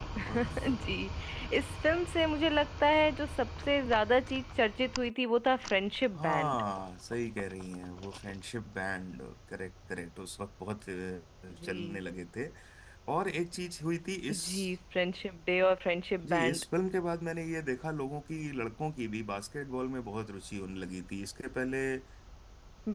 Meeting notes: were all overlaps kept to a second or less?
Yes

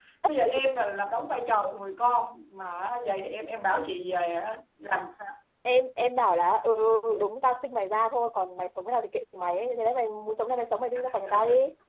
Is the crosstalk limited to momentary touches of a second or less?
Yes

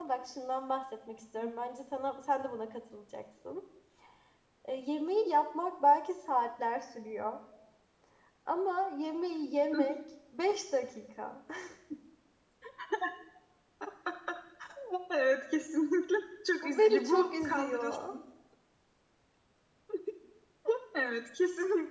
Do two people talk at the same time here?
Yes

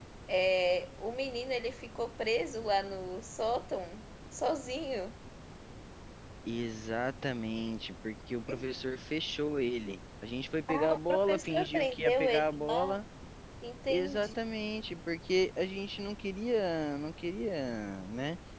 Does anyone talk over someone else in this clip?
Yes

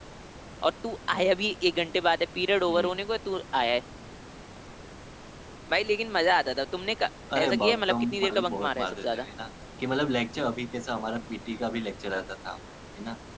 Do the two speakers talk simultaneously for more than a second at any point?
Yes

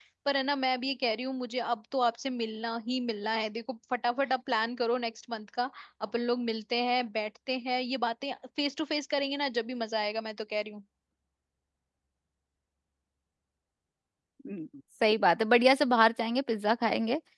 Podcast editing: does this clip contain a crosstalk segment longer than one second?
No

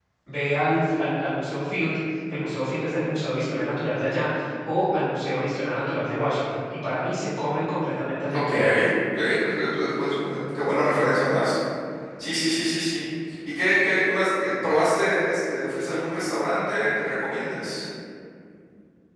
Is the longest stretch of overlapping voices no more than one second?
Yes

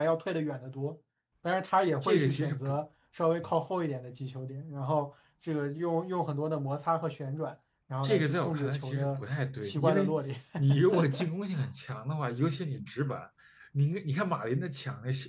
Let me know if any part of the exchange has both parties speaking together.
Yes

